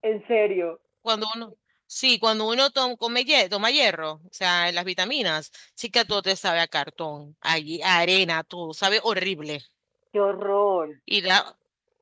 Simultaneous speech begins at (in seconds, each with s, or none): none